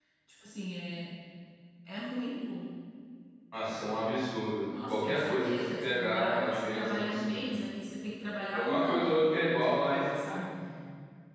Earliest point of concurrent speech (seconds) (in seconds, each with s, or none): 4.9 s